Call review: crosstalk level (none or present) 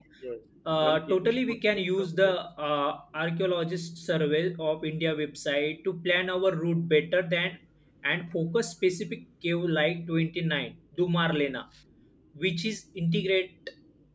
present